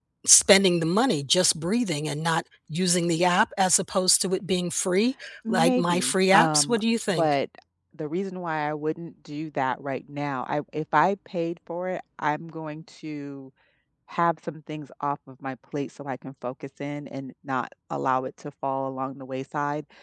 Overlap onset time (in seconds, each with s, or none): 5.5 s